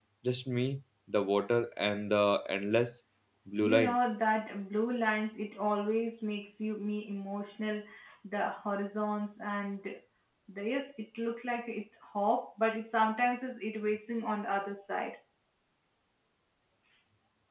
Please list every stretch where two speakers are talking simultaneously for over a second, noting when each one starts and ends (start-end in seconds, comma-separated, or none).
none